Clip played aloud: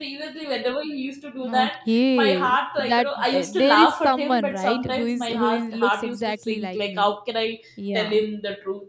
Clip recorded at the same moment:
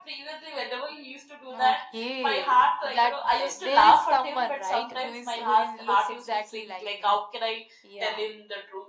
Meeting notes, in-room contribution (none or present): none